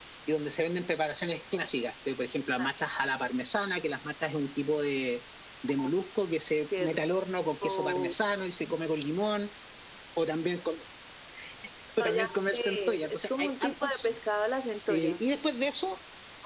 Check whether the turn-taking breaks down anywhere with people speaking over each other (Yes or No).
Yes